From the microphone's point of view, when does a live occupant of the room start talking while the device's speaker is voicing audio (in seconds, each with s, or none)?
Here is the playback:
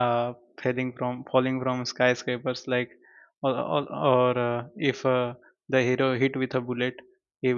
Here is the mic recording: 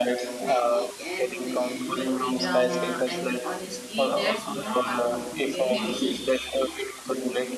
0.4 s